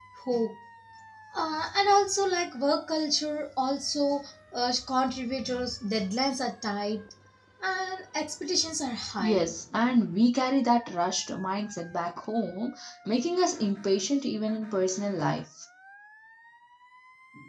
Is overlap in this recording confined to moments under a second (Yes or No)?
Yes